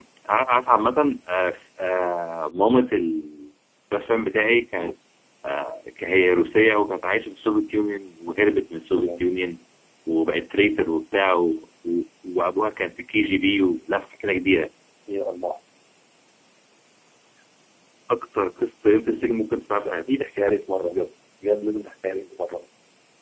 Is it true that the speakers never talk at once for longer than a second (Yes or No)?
Yes